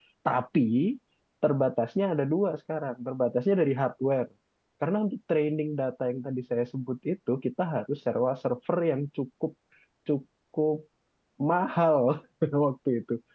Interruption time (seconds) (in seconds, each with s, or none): none